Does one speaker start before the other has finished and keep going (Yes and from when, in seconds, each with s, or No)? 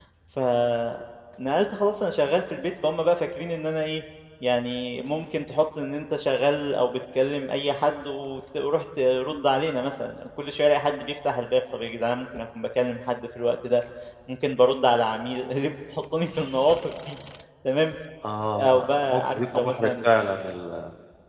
Yes, from 18.6 s